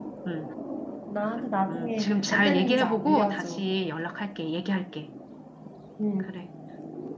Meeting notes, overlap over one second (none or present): present